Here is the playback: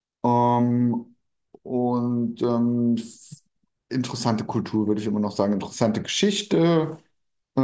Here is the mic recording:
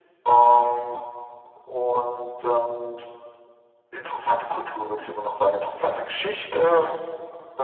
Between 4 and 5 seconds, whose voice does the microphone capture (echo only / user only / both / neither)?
echo only